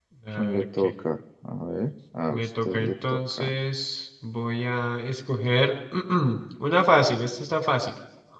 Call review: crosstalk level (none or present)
present